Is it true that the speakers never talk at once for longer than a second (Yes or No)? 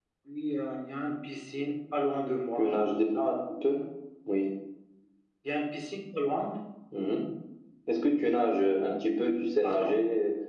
Yes